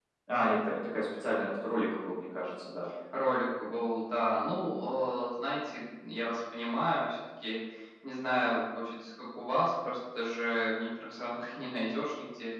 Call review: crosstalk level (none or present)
none